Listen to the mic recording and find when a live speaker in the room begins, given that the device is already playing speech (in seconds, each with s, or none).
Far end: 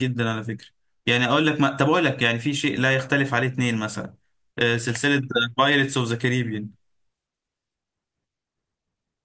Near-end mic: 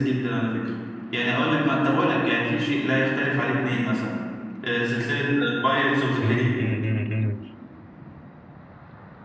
6.2 s